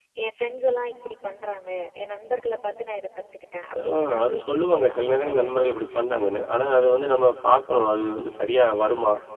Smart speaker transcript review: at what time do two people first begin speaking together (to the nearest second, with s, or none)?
4 s